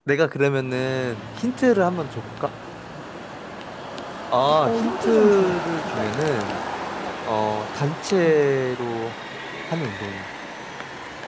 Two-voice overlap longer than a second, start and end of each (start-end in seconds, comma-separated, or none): 4.7-5.9